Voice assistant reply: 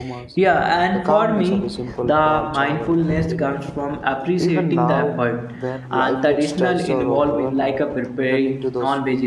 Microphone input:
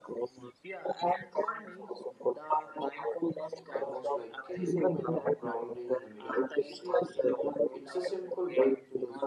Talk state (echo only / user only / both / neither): both